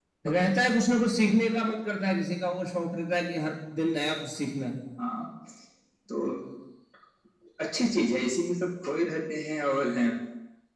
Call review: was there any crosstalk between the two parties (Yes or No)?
No